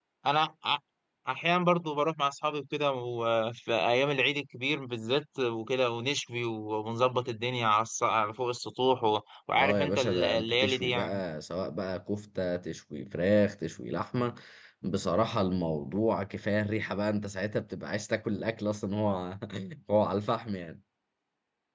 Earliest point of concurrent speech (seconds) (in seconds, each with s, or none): 9.5 s